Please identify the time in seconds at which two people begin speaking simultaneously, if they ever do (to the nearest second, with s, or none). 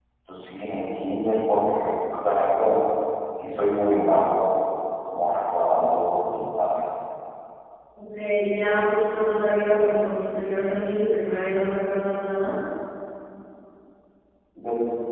none